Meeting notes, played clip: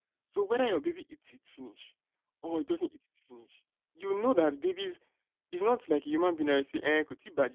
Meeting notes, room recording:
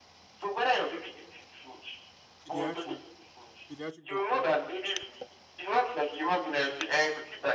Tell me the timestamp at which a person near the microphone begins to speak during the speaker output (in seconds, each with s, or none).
2.5 s